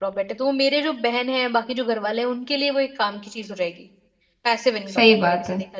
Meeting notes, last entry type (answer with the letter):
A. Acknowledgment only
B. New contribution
B